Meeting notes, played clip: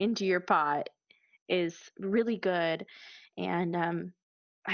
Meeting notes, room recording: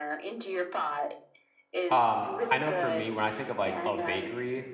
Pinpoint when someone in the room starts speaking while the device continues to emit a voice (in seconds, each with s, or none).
1.9 s